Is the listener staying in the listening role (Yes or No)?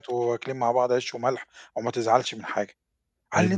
No